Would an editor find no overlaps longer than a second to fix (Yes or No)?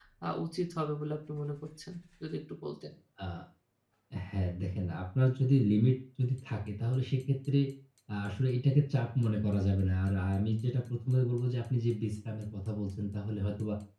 Yes